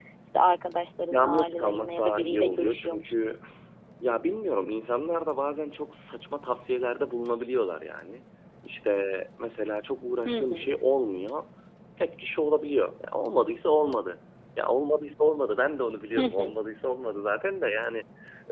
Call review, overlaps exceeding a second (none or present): present